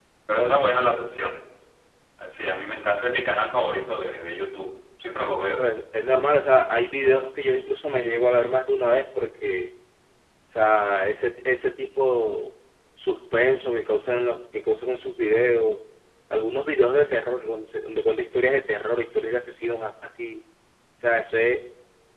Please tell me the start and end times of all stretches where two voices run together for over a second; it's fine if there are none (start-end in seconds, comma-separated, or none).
none